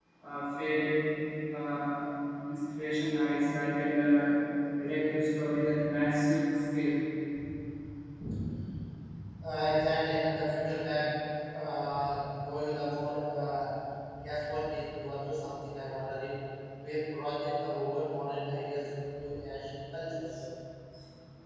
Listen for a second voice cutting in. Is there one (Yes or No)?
No